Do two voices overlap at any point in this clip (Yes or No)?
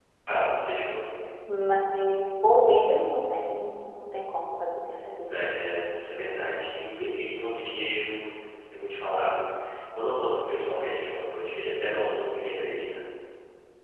No